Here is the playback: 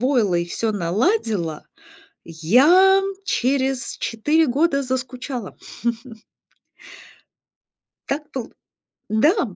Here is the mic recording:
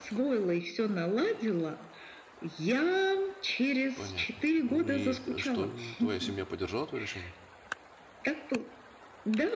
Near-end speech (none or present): present